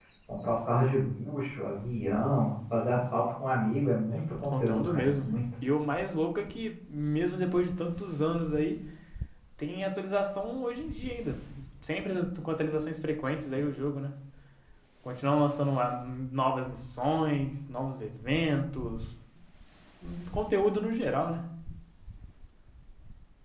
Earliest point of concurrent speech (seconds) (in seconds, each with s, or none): 4.1 s